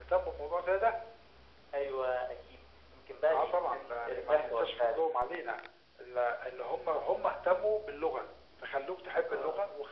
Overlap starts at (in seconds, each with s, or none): 3.3 s